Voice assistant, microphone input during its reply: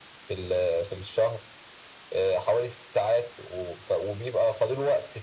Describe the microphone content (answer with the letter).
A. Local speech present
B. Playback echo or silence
B